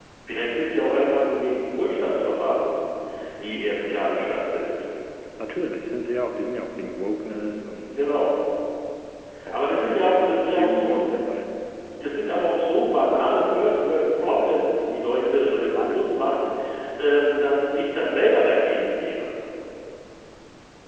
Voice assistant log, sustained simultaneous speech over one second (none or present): present